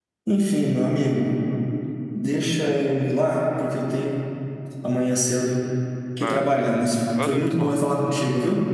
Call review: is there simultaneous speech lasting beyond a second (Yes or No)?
Yes